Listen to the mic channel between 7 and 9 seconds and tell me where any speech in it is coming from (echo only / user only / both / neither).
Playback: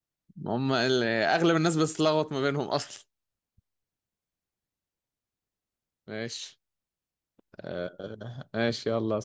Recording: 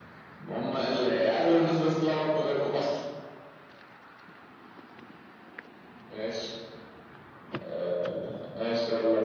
echo only